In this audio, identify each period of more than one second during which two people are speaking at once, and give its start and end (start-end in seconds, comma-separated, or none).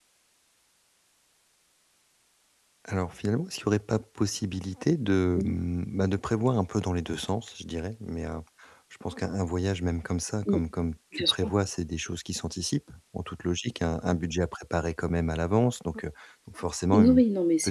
none